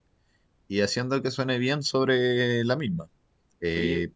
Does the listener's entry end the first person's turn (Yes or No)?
No